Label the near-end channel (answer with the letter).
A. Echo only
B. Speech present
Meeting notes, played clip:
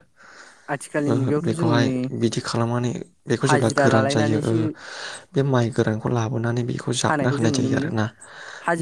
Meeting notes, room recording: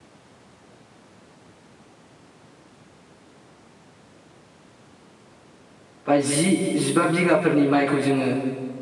B